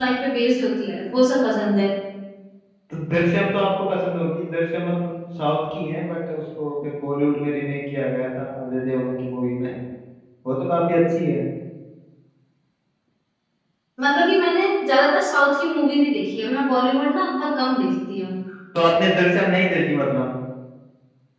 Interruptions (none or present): none